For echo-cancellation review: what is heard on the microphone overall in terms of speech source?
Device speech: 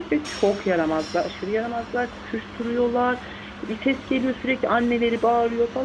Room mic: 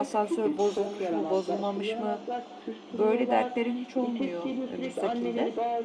both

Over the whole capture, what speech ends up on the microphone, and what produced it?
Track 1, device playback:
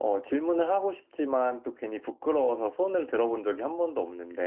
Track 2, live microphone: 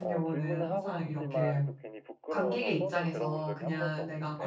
both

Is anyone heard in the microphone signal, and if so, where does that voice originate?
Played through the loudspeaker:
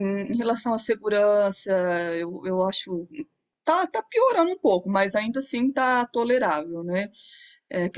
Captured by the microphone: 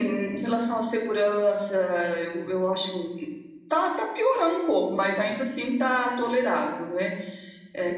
echo only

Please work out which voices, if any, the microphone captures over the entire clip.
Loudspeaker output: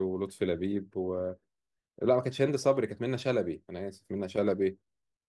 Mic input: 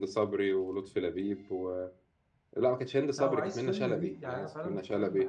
both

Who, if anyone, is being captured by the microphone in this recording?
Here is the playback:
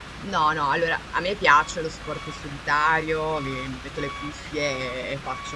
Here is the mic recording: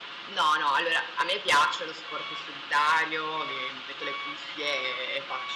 echo only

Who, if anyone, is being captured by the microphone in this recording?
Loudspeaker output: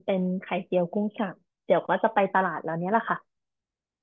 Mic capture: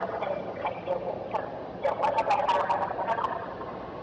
echo only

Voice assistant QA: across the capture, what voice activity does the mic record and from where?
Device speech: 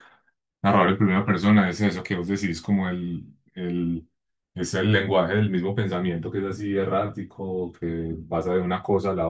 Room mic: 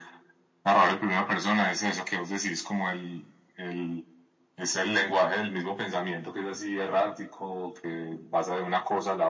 echo only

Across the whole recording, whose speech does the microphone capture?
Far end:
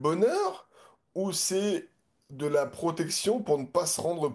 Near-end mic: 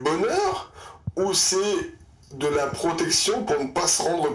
echo only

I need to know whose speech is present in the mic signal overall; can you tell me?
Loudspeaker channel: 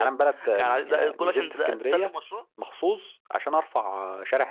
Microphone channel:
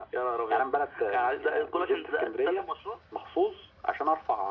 echo only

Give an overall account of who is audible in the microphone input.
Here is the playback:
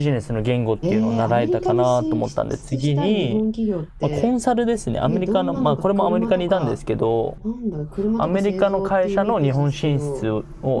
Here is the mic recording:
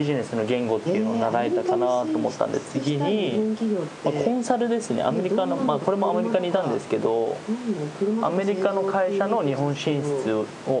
echo only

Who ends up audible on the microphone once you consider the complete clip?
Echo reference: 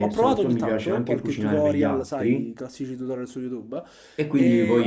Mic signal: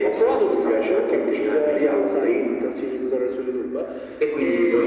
echo only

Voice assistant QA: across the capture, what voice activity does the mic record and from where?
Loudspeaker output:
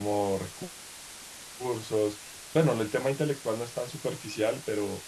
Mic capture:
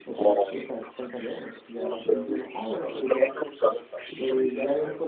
both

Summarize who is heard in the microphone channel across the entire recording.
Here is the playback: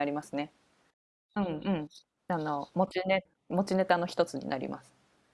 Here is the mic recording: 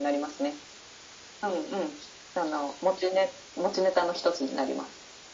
echo only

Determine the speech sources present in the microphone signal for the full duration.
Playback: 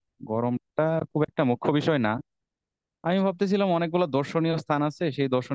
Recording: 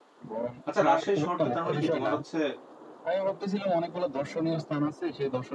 both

